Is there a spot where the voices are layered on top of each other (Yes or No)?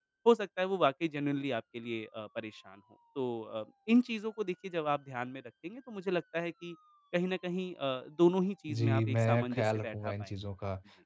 Yes